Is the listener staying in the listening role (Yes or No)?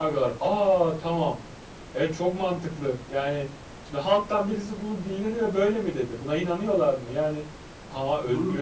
Yes